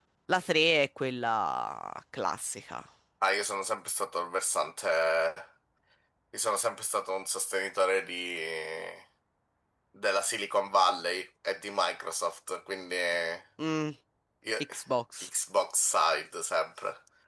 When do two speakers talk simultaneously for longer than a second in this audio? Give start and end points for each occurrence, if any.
none

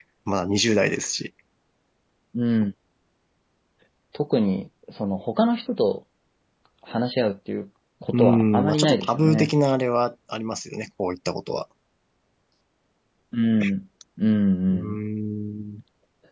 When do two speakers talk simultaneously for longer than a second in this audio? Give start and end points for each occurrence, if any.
8.1-9.5

